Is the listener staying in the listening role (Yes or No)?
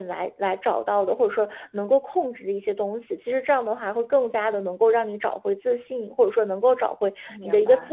Yes